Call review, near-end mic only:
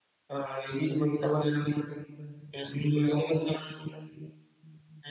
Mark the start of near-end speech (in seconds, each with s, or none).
none